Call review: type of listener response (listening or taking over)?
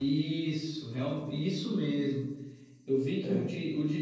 listening